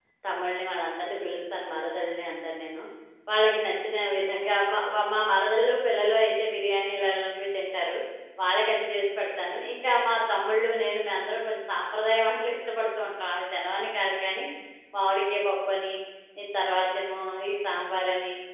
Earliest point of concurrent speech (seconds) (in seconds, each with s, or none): none